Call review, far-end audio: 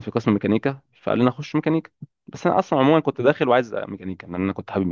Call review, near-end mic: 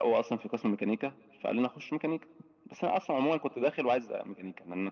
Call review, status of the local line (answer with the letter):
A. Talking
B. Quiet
B